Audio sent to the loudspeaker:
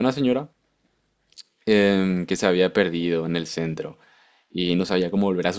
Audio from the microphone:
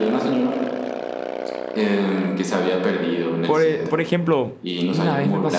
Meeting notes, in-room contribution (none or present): present